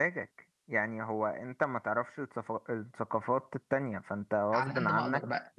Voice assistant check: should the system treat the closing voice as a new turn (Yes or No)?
Yes